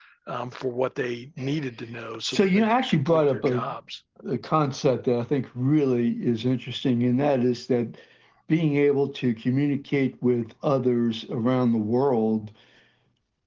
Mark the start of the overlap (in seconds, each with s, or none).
2.3 s